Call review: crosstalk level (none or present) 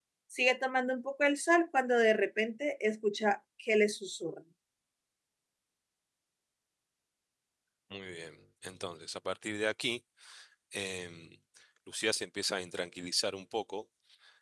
none